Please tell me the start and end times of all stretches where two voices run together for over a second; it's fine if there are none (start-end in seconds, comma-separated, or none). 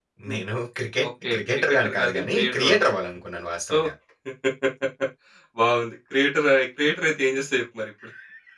1.1-3.0